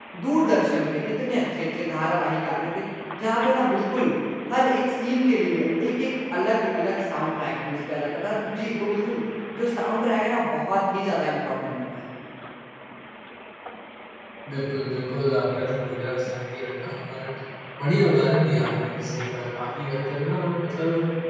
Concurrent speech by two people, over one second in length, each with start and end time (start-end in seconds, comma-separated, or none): none